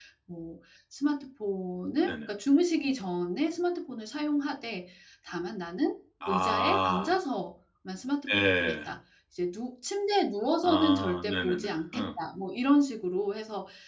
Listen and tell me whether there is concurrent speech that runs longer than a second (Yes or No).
Yes